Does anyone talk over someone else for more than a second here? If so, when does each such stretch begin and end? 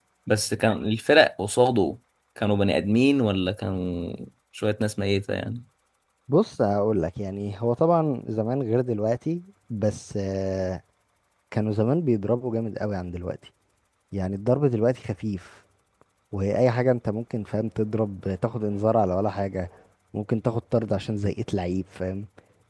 none

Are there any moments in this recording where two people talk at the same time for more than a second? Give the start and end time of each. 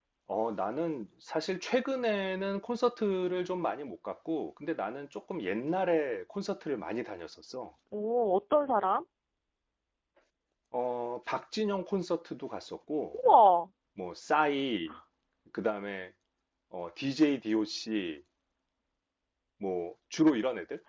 none

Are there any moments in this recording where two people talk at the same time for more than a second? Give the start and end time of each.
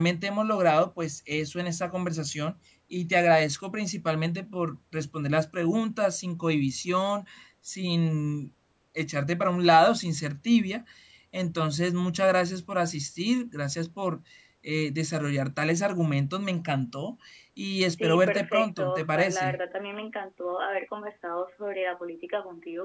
18.0-19.6

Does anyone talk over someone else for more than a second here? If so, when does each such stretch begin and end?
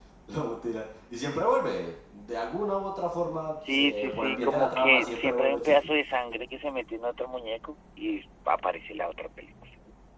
3.7-5.9

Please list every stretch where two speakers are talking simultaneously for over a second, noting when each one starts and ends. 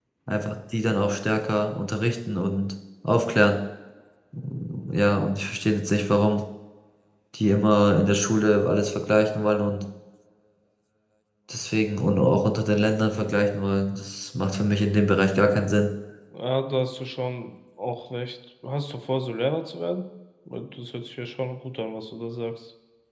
none

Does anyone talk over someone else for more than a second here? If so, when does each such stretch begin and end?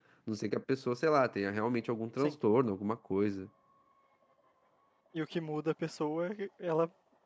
none

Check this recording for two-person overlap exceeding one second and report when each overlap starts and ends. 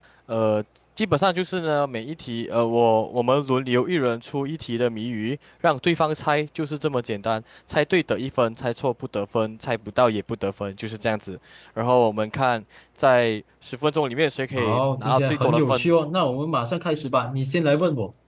14.6-15.9

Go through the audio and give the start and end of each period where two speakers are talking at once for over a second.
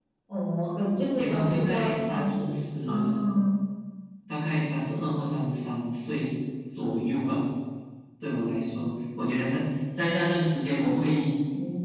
1.1-2.4

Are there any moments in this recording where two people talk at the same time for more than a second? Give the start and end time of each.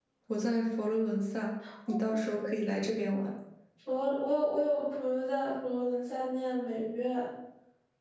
none

